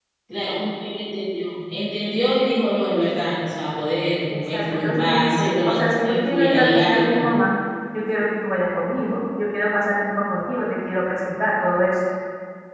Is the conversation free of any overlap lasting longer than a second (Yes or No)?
No